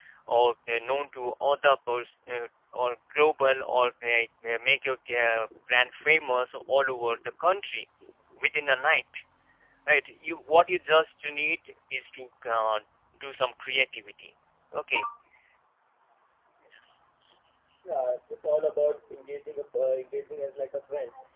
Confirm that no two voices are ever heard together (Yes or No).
Yes